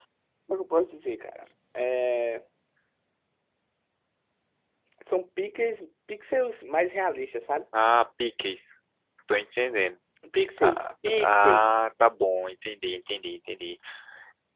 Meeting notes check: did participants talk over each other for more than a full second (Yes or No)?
Yes